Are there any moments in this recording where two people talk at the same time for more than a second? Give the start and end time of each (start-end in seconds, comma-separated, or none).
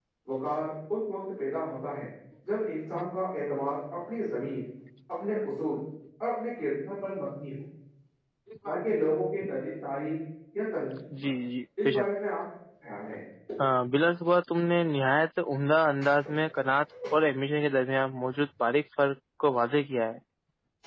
none